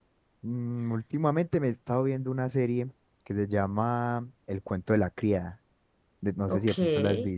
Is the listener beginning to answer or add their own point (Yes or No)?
Yes